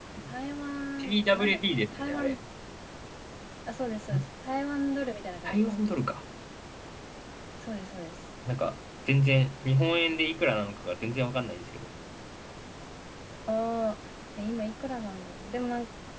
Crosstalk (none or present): present